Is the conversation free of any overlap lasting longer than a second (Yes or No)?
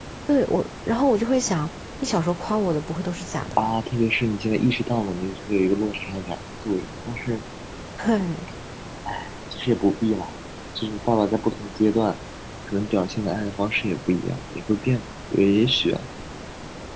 Yes